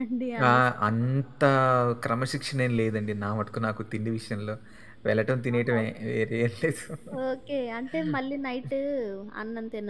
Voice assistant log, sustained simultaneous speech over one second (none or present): none